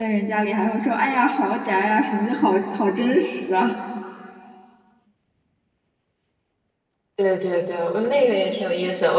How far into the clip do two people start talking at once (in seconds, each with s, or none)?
none